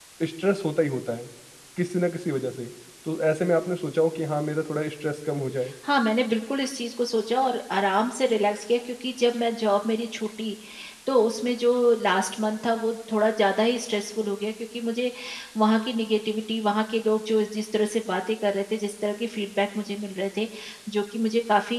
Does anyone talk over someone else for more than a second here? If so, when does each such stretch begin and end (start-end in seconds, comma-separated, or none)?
none